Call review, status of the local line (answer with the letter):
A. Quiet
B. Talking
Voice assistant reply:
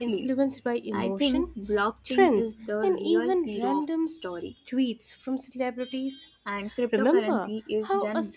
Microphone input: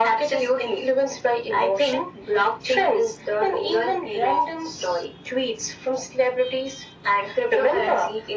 A